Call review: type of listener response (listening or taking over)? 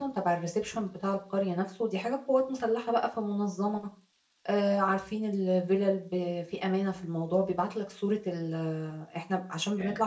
listening